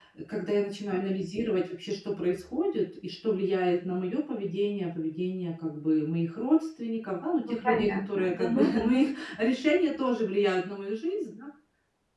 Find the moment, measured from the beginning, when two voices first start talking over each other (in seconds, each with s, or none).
7.6 s